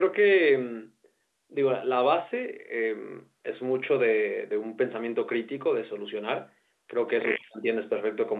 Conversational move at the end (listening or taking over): listening